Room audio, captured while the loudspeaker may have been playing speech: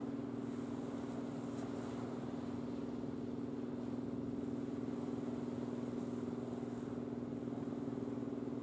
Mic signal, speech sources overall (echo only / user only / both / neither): neither